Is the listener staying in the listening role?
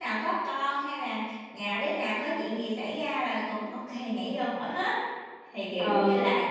No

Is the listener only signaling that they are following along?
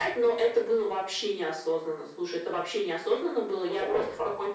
Yes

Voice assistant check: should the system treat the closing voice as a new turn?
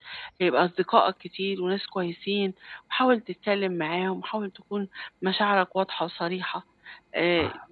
No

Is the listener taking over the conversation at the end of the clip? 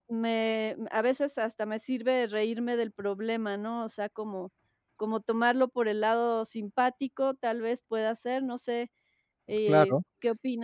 Yes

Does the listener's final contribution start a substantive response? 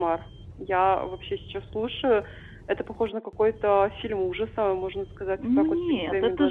Yes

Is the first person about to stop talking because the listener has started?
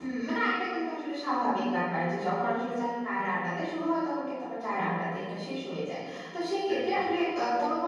No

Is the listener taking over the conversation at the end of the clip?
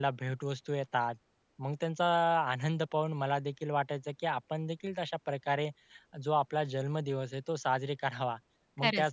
No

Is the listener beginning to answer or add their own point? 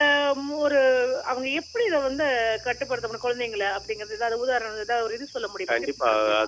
Yes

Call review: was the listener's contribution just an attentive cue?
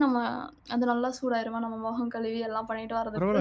No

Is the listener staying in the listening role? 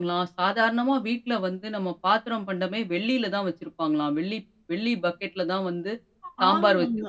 No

